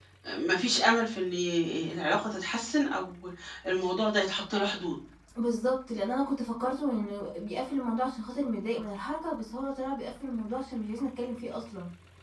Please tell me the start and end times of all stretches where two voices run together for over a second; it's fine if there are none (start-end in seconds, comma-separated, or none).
none